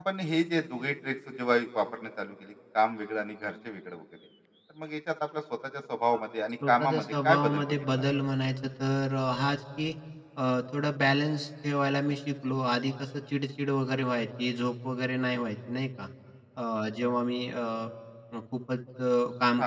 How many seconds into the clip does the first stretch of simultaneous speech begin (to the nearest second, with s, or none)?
7 s